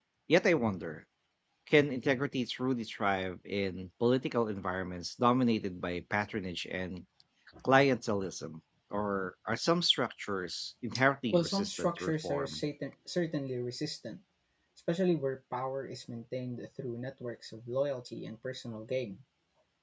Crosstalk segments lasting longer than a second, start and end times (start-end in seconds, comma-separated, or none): 11.3-12.6